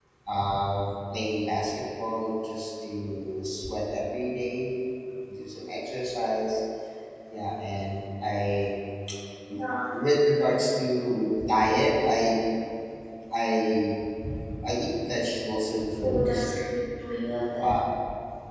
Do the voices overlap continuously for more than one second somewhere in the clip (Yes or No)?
No